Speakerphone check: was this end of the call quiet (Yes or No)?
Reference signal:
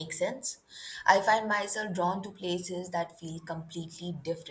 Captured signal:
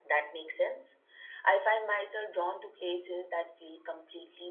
Yes